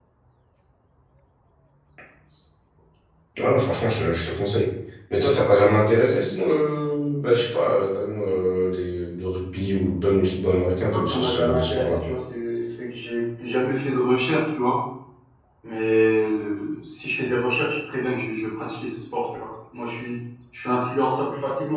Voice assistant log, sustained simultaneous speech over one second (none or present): present